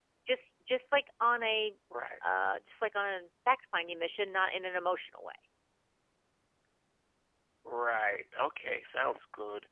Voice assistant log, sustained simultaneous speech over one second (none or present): none